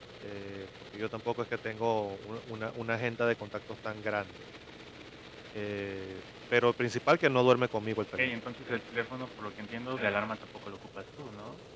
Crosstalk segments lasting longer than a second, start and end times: none

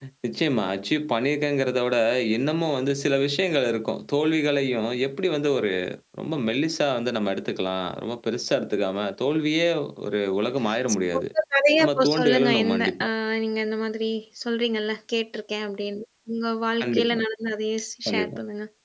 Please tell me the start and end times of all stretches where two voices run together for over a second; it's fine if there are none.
11.8-13.1

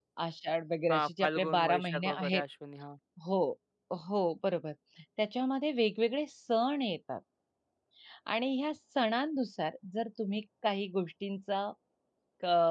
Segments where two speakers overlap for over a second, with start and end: 0.9-2.4

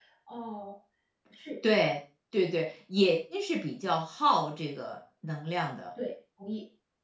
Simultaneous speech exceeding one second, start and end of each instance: none

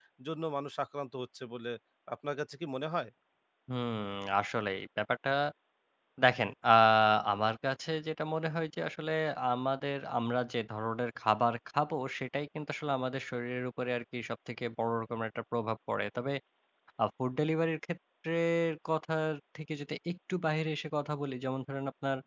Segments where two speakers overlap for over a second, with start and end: none

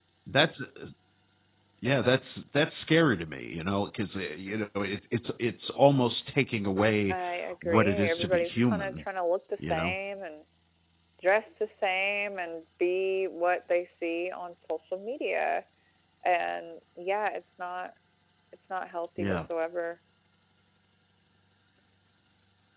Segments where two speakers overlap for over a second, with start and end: 7.6-9.0

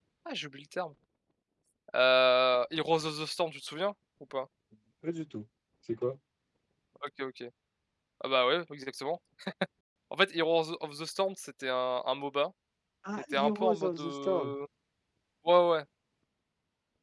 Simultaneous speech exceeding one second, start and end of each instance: 13.3-14.5

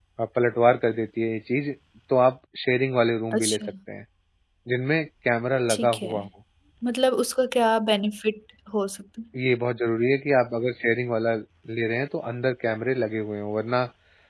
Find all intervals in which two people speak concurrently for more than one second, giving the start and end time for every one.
none

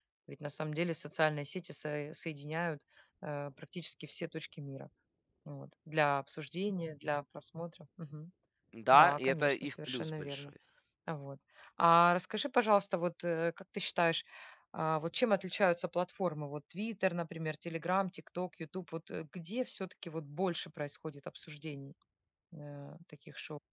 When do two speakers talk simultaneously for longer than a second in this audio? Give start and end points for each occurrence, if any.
8.9-10.5

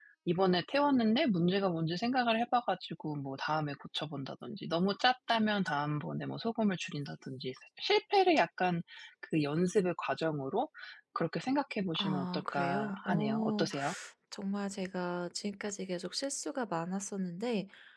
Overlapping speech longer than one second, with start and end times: 12.0-13.7

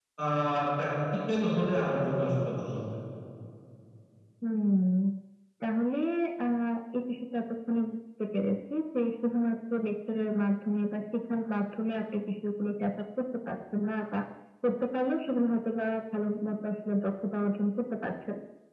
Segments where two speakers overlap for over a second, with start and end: none

